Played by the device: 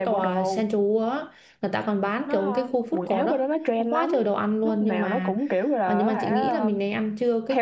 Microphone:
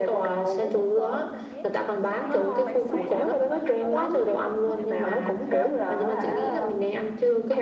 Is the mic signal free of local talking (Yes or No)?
No